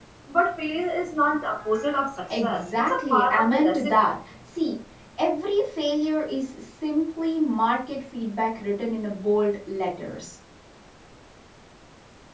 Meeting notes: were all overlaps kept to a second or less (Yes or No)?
No